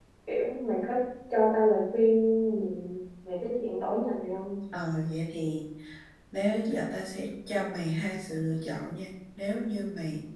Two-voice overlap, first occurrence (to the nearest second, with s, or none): none